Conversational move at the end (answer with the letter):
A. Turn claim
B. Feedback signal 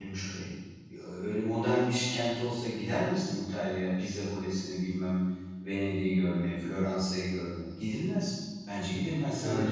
A